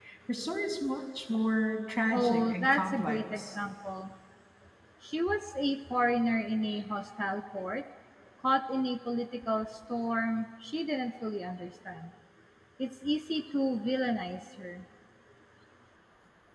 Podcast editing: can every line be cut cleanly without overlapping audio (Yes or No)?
No